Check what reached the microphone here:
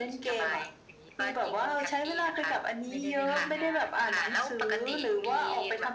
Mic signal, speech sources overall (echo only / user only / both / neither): both